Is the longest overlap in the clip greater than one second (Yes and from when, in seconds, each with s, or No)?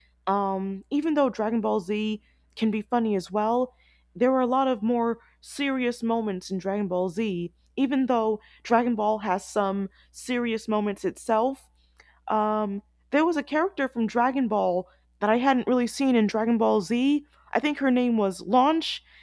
No